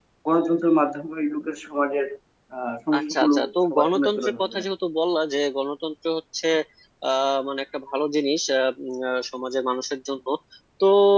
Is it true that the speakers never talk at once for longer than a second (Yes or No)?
No